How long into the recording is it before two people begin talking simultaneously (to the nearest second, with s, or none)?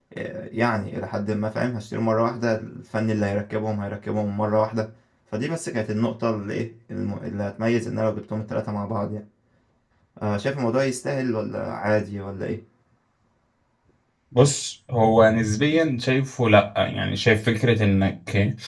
none